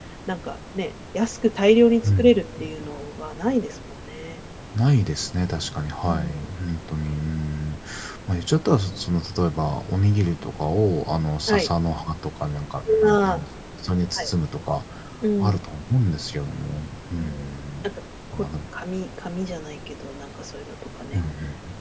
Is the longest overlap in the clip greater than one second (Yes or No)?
No